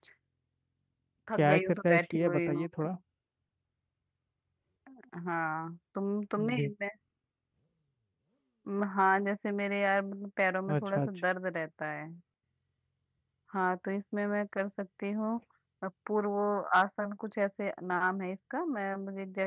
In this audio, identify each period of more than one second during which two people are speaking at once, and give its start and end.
1.4-2.7

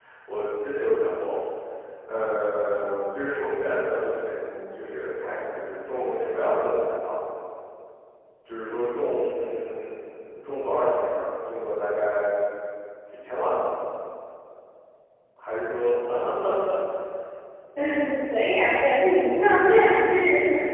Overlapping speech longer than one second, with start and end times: none

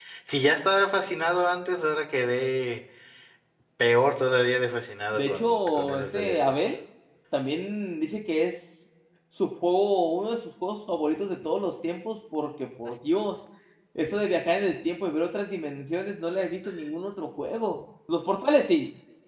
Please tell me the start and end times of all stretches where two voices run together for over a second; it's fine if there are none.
5.1-6.5

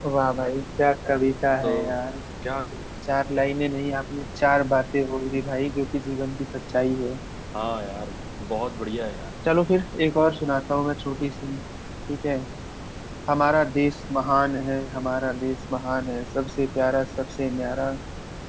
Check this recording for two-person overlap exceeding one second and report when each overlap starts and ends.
none

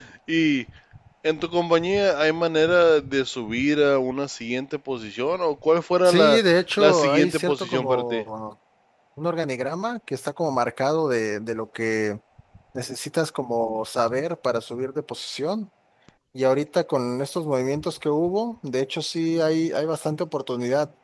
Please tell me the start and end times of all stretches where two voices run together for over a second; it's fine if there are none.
6.0-8.2

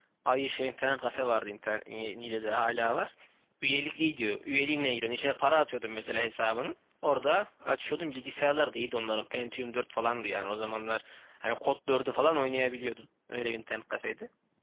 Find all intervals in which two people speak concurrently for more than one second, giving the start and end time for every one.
none

